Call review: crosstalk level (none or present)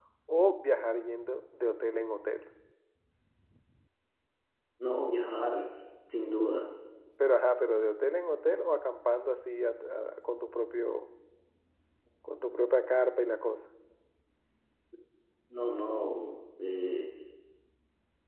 none